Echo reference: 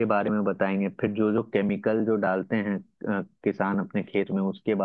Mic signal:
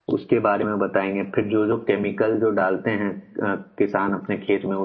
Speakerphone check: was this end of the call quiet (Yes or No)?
Yes